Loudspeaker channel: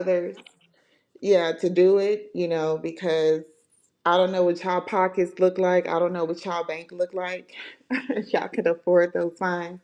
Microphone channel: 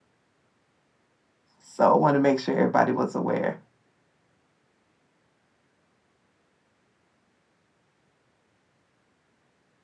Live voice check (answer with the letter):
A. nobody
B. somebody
B